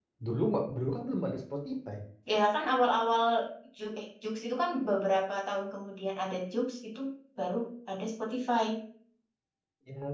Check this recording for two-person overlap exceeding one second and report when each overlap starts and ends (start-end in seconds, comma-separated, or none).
none